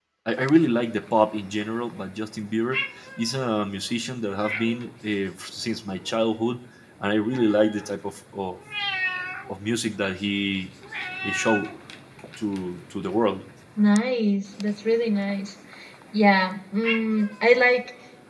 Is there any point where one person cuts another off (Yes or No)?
No